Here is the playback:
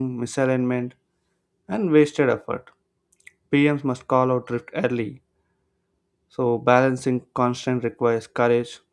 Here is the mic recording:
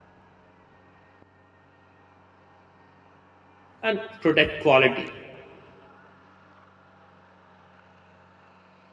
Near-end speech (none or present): present